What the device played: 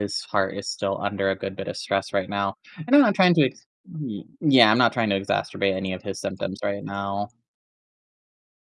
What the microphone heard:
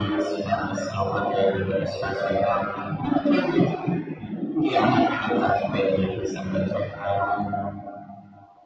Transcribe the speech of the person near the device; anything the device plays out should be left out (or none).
none